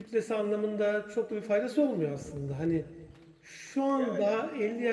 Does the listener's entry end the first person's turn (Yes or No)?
No